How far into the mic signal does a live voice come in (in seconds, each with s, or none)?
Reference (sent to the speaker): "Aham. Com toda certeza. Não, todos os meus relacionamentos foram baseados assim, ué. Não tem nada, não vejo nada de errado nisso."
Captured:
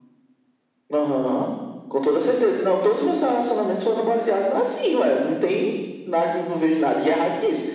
none